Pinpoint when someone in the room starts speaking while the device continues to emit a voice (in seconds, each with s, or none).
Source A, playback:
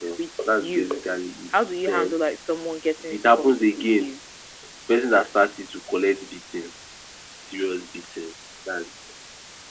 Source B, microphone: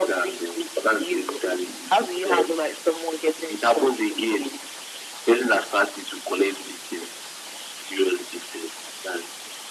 none